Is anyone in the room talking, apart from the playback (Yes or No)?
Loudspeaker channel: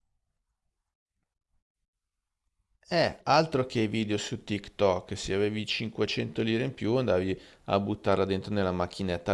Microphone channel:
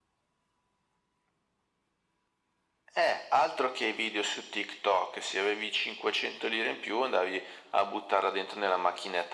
No